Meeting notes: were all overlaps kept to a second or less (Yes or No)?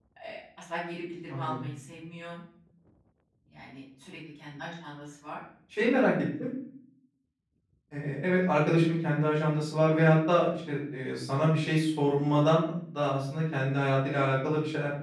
Yes